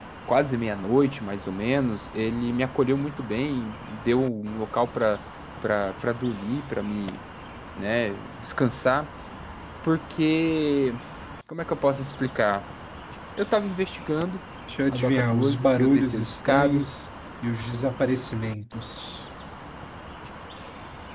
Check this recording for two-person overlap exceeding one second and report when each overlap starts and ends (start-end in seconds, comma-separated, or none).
14.9-16.9